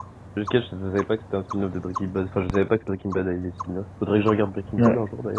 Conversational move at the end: taking over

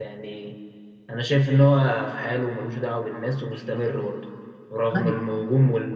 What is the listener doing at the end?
listening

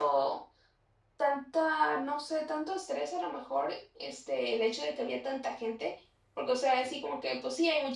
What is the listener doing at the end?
listening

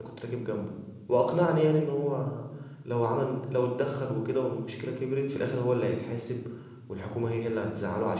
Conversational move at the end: listening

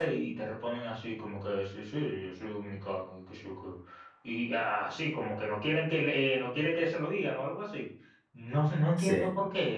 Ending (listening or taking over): listening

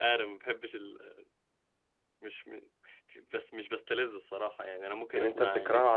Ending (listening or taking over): taking over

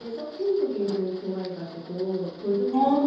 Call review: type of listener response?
listening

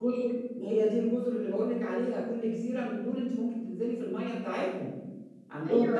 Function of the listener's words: taking over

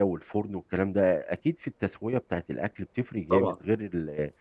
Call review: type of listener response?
listening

